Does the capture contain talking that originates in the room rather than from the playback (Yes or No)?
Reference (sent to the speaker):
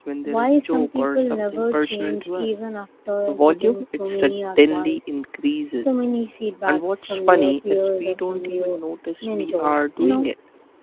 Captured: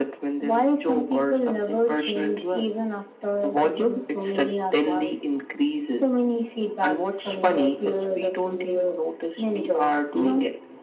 No